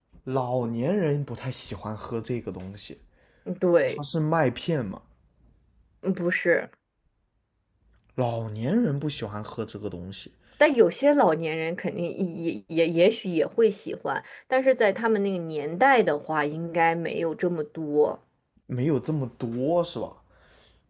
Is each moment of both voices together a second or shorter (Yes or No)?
Yes